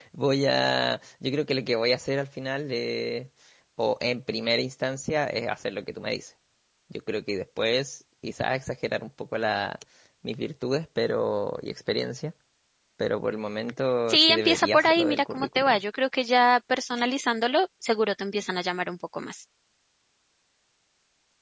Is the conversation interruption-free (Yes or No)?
No